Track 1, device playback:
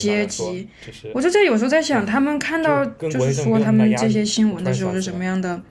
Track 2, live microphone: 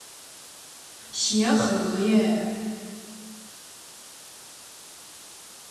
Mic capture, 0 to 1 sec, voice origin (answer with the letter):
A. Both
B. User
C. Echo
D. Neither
D